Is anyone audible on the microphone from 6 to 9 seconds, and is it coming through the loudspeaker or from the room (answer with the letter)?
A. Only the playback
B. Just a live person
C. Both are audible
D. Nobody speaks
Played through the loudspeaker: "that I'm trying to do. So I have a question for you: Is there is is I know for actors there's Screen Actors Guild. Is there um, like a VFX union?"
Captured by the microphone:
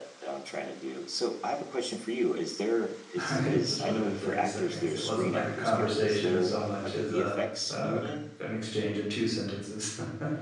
C